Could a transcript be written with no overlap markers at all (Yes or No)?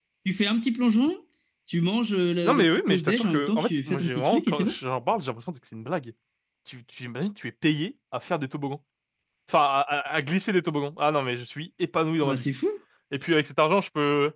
No